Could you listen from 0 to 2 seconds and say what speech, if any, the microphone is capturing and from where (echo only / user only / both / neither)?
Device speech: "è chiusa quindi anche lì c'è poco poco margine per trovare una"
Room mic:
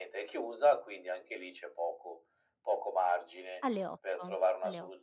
echo only